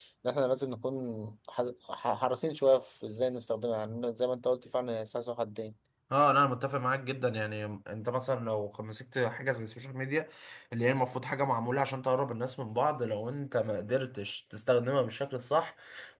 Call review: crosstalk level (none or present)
none